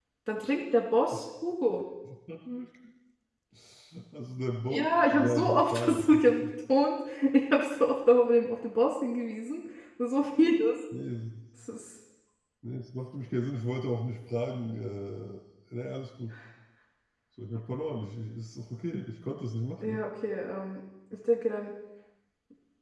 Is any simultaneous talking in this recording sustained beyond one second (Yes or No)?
Yes